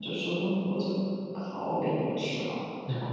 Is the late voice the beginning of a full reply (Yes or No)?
Yes